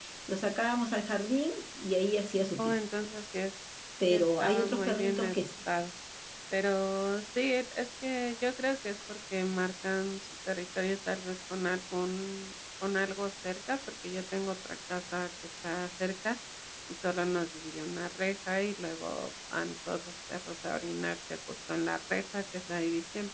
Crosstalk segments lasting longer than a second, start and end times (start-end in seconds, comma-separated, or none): 4.1-5.4